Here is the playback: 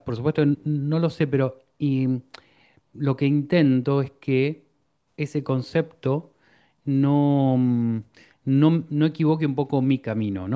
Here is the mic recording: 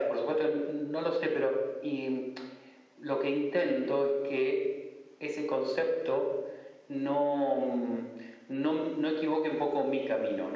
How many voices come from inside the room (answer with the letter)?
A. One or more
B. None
B